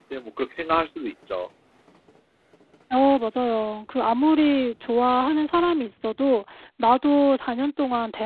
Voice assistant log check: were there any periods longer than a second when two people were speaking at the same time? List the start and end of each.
none

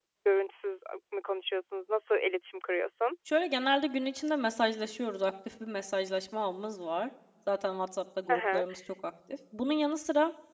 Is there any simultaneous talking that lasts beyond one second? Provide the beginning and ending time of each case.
none

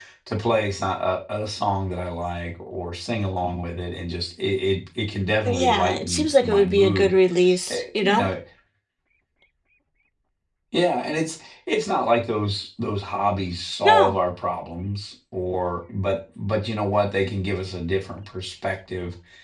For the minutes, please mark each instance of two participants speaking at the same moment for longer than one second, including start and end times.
5.5-7.1

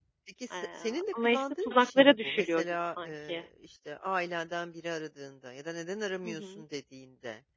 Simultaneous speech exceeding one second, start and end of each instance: 1.1-3.4

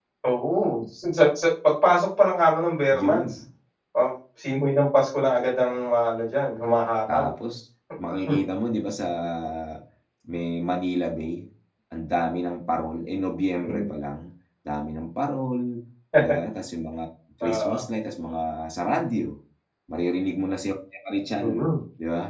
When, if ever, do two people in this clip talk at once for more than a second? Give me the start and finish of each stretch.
none

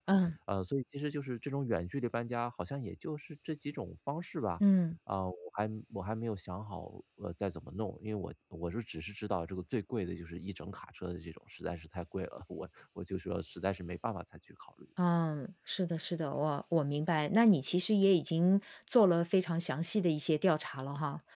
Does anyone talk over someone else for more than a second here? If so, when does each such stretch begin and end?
none

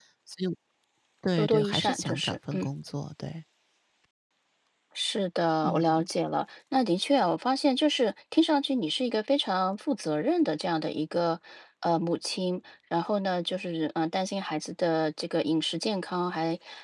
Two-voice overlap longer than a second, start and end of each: 1.4-2.7

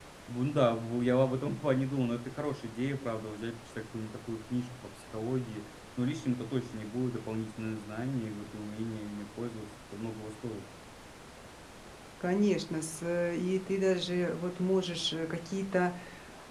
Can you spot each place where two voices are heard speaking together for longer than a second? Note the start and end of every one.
none

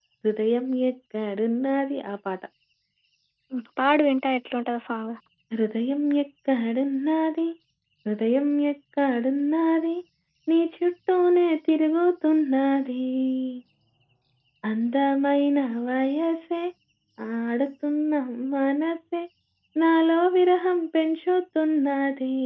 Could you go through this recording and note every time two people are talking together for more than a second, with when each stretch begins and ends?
none

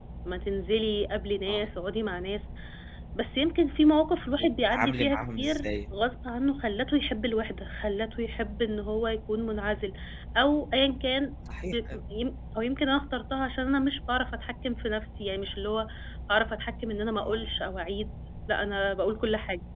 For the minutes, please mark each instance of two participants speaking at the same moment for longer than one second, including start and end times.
4.4-5.7

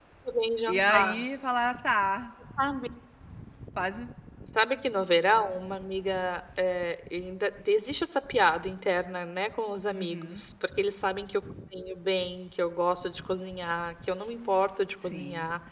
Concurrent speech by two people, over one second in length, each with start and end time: none

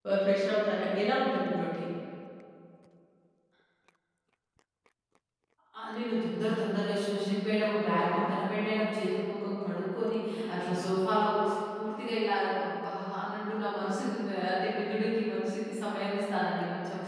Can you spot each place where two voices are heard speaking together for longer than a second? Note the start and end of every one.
none

